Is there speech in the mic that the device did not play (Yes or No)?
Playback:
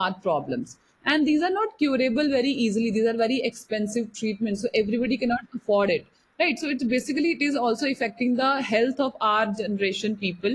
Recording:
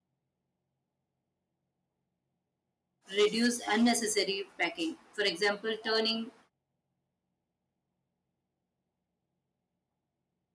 Yes